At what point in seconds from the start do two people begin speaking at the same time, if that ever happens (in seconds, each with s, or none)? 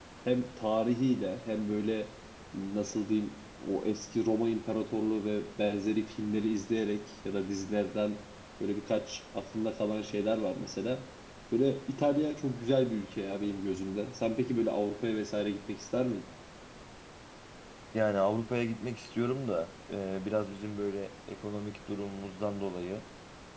none